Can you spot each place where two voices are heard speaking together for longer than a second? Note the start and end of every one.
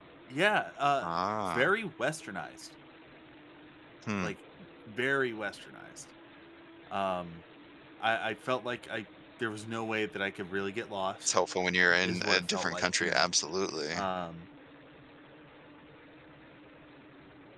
12.0-13.3

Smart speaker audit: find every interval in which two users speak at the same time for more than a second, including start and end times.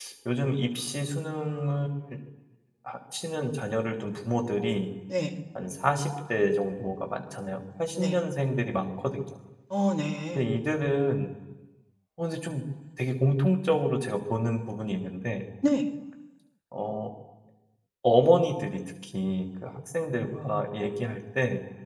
none

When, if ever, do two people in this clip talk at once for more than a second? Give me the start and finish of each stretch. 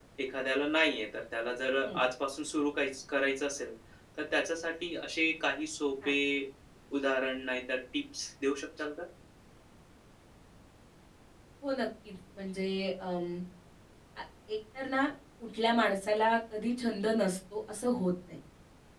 none

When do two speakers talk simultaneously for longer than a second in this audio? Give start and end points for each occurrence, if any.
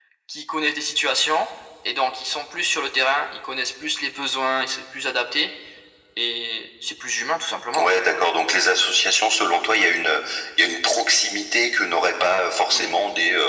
none

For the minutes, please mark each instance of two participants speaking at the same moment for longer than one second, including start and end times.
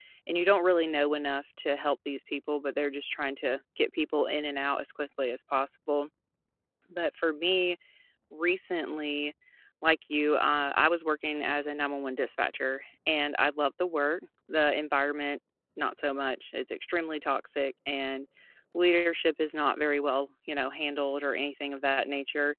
none

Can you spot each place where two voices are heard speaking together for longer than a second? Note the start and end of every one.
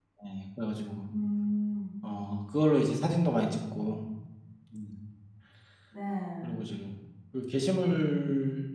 none

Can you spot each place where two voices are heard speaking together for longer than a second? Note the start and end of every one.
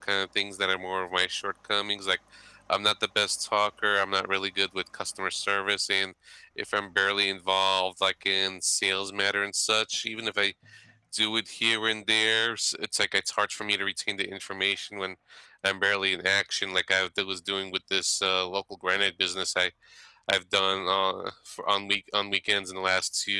none

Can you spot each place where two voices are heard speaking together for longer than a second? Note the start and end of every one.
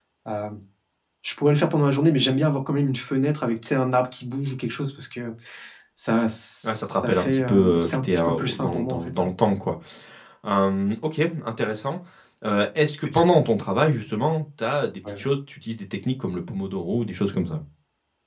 6.6-9.3

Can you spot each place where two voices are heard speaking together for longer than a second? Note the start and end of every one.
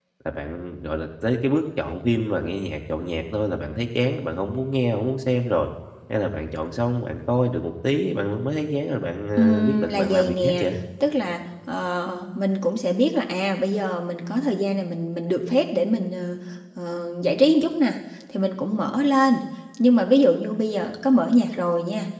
9.4-10.7

